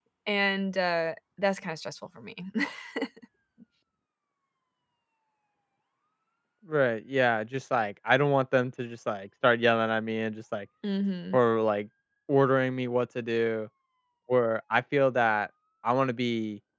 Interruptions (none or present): none